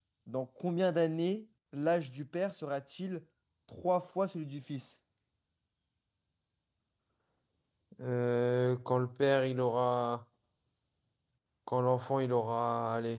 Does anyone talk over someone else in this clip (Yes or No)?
No